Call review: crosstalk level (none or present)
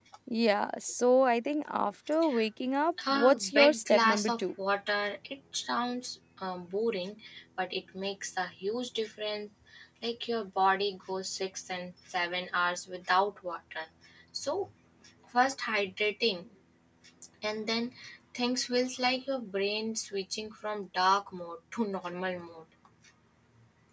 present